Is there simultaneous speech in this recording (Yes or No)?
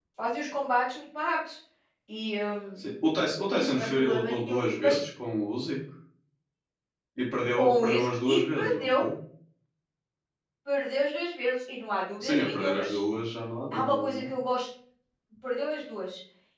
Yes